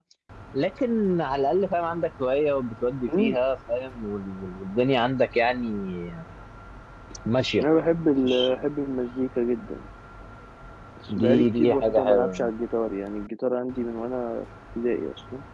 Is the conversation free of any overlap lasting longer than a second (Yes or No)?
No